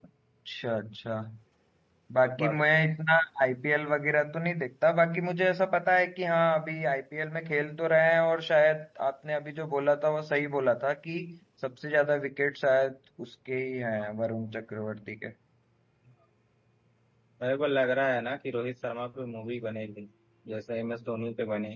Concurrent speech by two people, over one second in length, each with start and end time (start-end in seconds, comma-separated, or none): none